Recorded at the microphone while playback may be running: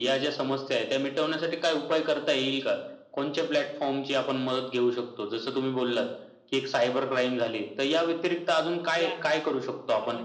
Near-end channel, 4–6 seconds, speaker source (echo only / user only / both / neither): echo only